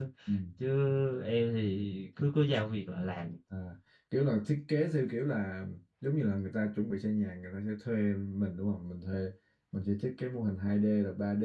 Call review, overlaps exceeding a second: none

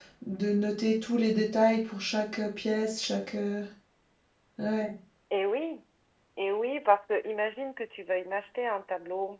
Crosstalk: none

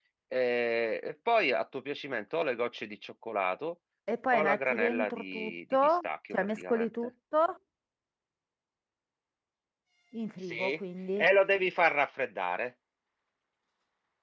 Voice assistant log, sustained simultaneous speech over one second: present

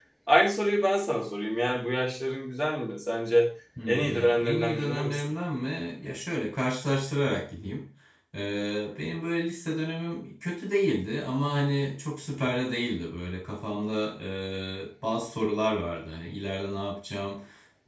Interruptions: present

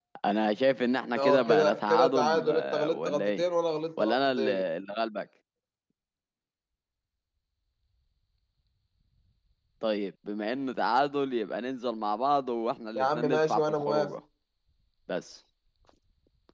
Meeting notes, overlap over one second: present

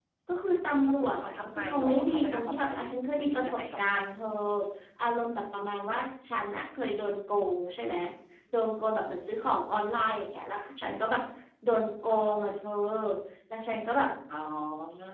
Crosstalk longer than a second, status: present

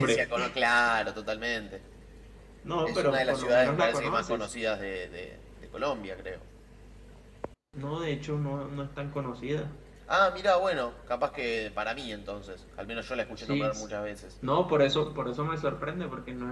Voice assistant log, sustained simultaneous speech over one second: present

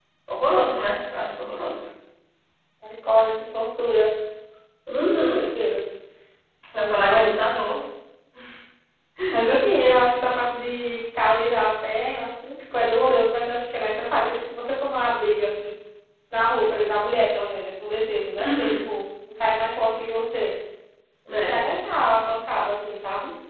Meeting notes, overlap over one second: none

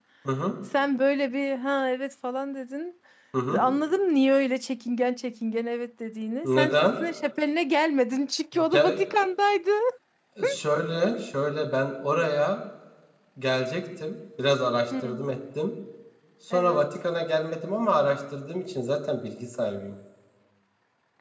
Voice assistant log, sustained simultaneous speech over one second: none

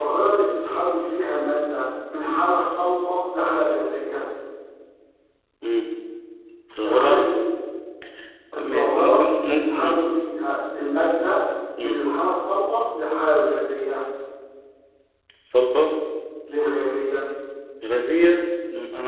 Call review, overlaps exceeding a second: present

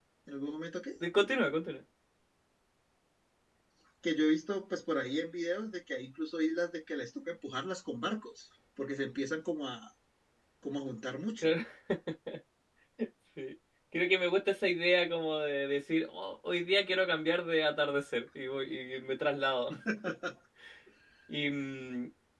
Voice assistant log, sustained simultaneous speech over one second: none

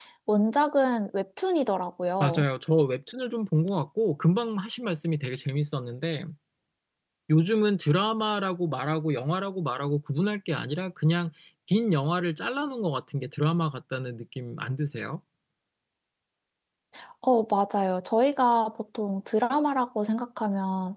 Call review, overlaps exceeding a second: none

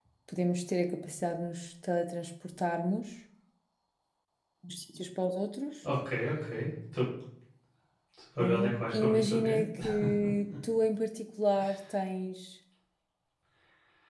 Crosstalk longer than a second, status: present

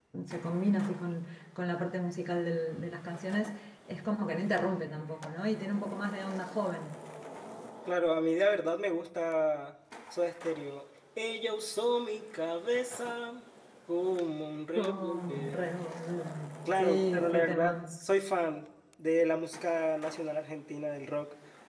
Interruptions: present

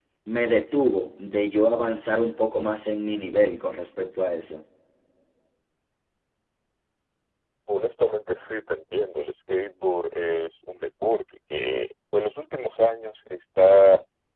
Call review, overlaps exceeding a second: none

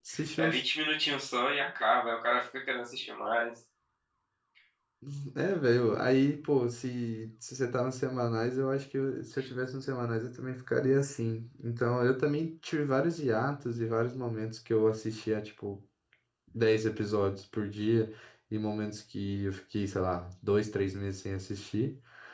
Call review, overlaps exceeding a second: none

